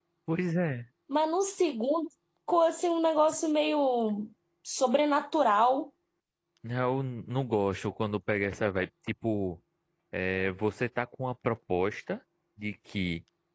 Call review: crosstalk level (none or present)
none